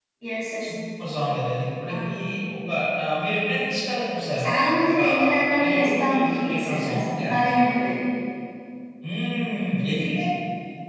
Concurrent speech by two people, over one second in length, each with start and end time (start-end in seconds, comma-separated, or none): 5.6-7.5